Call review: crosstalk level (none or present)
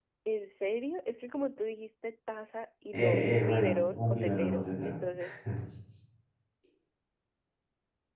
present